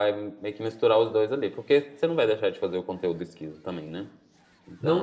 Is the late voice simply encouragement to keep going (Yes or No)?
No